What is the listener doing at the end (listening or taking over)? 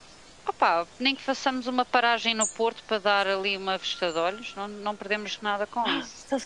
taking over